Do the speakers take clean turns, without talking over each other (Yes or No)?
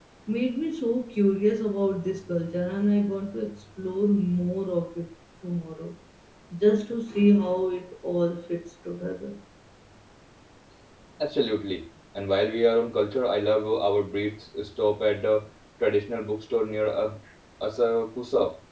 Yes